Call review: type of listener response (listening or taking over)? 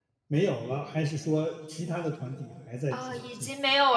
taking over